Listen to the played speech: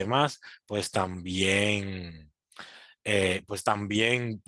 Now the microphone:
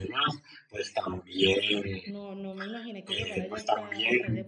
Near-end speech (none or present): present